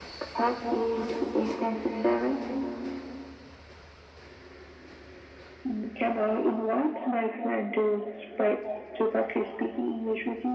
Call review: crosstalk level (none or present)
none